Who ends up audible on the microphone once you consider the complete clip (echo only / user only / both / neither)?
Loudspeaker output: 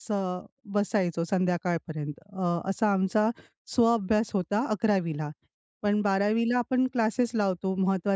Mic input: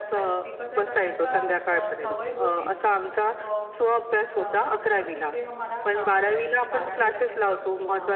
both